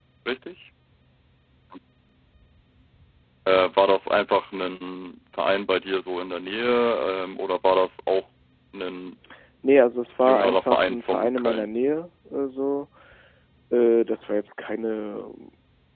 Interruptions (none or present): present